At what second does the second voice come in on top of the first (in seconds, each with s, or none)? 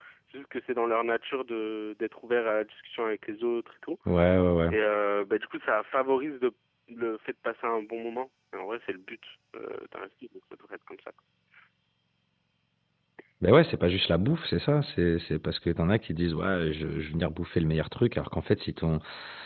none